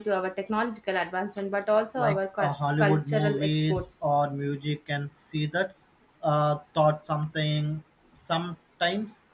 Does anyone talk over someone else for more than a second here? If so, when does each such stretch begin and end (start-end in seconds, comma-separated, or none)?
2.0-3.8